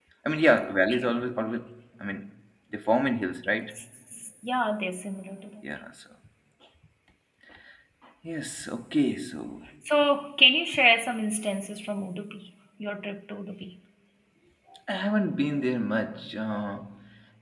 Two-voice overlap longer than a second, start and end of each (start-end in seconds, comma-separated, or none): none